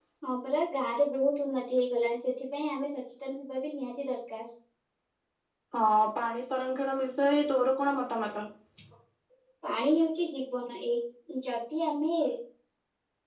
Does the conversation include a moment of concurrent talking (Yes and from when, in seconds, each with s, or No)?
No